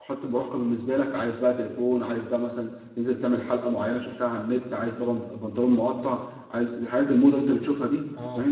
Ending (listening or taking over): listening